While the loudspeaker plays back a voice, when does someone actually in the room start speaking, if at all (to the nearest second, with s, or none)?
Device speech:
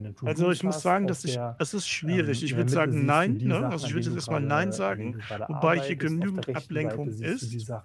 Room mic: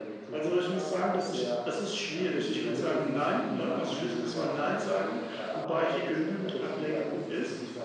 none